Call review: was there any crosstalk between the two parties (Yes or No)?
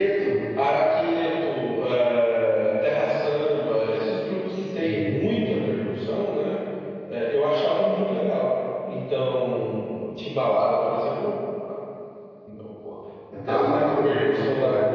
Yes